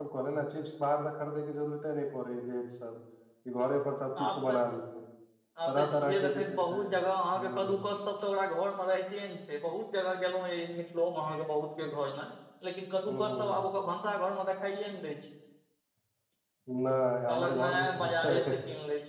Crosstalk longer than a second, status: present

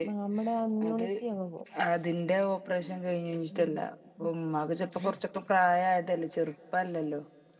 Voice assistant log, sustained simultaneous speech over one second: none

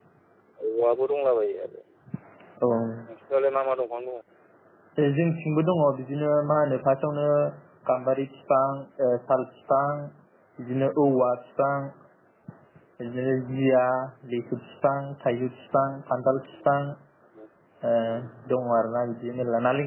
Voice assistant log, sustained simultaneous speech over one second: none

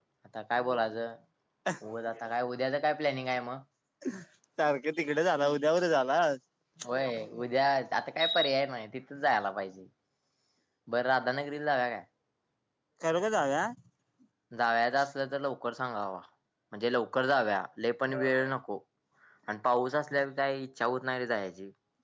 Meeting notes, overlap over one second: none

